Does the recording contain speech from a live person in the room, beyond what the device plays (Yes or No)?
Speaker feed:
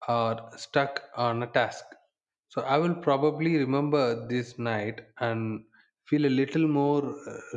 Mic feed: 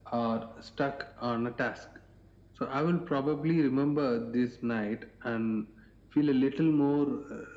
No